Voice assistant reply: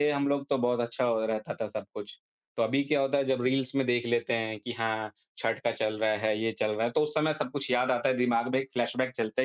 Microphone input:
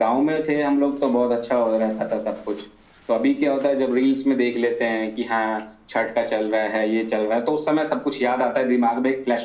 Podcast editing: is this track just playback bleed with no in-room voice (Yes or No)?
Yes